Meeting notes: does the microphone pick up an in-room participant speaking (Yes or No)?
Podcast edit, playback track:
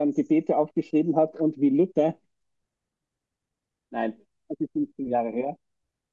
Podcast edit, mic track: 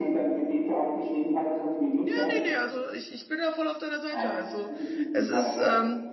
Yes